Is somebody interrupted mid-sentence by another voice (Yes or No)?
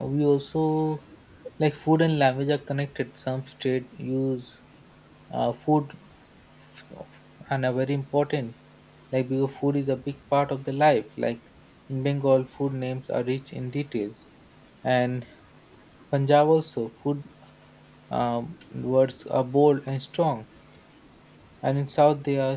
No